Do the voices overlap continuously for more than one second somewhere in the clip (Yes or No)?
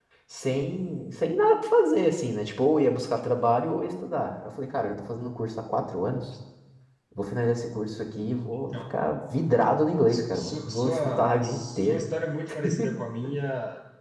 Yes